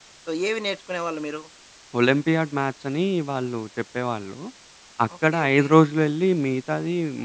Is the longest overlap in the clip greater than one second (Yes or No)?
No